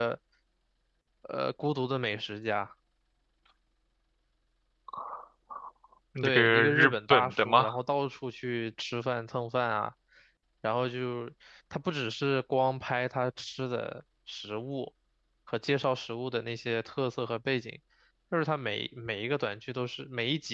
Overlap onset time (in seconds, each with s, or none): 6.2 s